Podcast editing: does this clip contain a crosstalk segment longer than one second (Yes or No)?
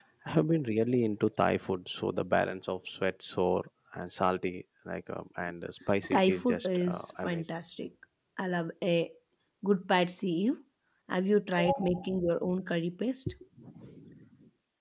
Yes